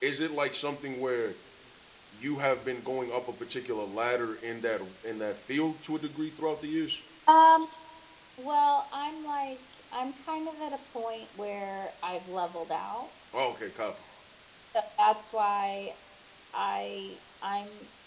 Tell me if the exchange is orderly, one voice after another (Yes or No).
Yes